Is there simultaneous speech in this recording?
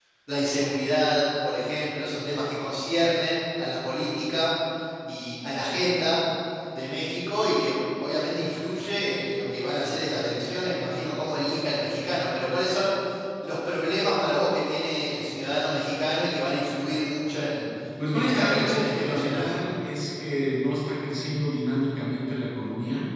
Yes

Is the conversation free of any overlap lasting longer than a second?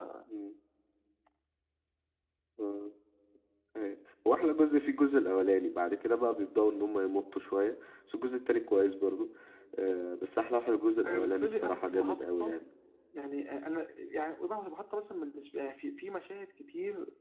No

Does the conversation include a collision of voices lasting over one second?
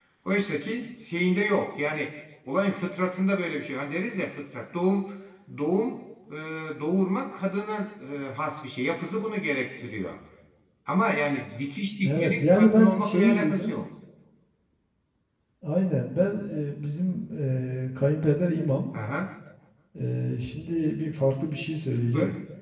Yes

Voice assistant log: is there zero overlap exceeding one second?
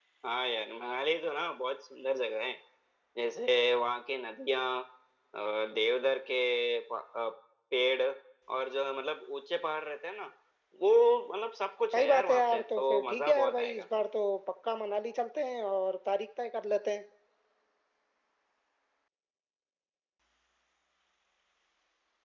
No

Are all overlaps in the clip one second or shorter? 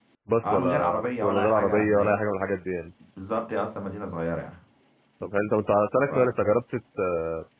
No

